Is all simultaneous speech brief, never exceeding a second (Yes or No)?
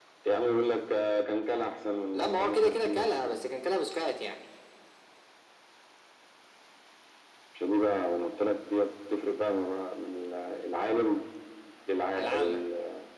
No